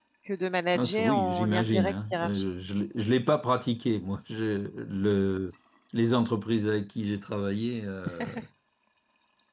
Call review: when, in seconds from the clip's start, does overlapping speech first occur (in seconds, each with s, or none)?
0.7 s